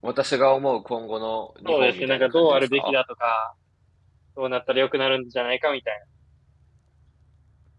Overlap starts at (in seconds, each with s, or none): 1.6 s